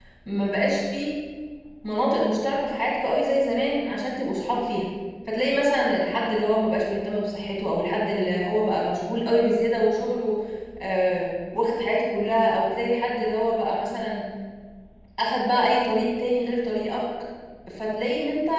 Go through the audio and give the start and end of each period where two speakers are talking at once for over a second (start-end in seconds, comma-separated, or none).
none